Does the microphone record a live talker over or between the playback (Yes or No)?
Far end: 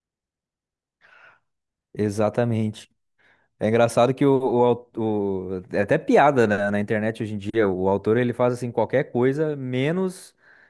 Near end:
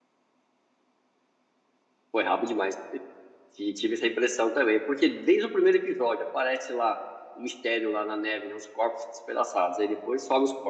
Yes